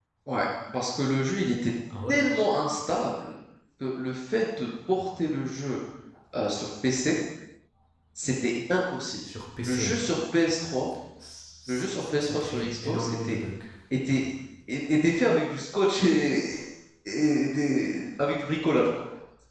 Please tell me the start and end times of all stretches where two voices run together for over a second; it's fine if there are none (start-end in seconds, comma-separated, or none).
11.7-13.4